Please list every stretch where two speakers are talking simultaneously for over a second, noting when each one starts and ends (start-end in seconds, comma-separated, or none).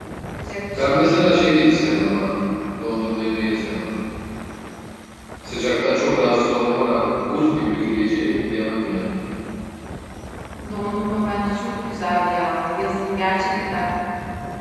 none